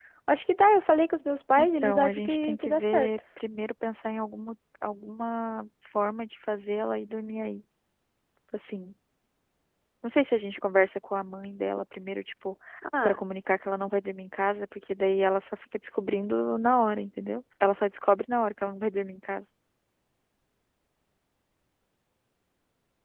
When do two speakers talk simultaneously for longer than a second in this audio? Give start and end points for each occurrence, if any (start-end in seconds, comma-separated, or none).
1.6-3.1